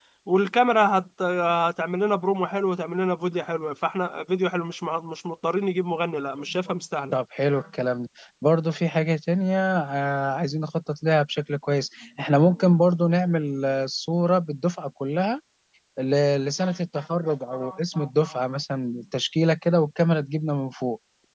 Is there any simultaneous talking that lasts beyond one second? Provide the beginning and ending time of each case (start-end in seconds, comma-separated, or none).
none